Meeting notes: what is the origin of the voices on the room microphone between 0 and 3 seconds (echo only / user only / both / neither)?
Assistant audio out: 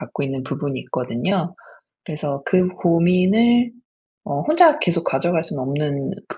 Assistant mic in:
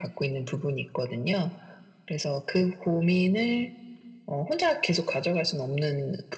echo only